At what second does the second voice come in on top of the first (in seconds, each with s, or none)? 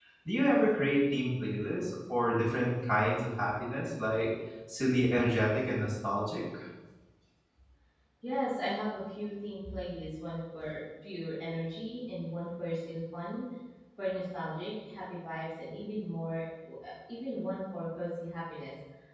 none